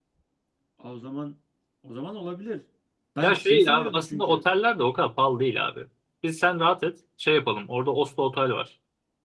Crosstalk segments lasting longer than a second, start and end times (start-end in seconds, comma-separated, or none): 3.2-4.4